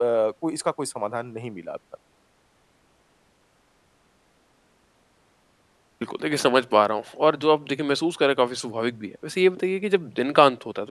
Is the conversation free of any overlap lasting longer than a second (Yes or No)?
Yes